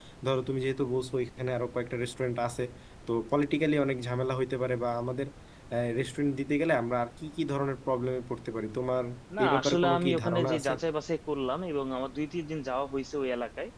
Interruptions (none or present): present